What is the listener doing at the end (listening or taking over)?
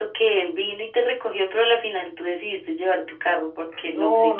taking over